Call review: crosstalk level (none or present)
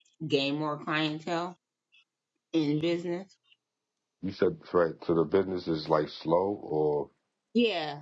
none